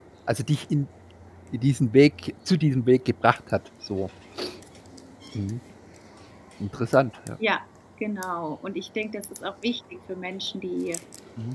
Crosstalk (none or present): none